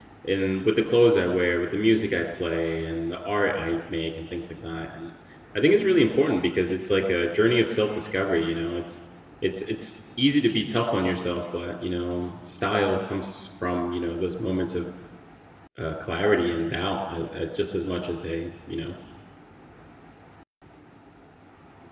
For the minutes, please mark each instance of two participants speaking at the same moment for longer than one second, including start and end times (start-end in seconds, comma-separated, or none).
none